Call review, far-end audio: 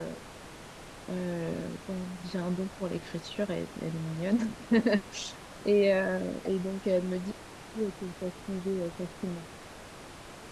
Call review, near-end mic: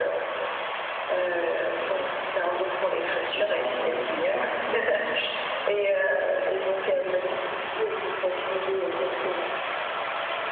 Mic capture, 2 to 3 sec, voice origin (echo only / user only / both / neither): echo only